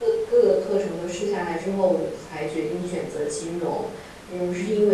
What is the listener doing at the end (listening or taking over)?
listening